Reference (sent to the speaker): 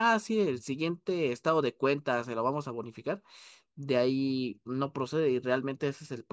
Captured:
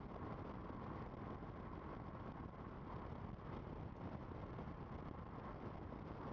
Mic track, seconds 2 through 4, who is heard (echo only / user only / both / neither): neither